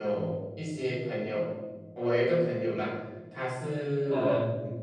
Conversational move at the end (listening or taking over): listening